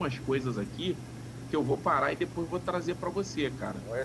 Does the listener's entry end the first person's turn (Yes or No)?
Yes